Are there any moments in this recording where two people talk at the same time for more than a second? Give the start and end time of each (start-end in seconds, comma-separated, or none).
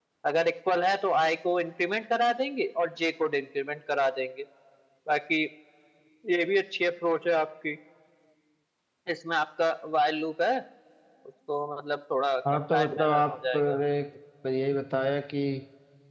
12.5-13.8